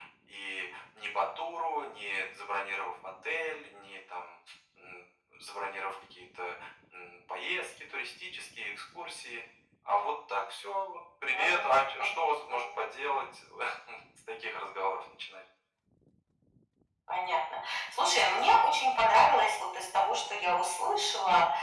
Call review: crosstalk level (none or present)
present